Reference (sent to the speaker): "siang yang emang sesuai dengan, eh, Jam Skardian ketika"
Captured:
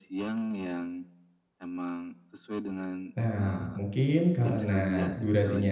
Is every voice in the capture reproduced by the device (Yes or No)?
No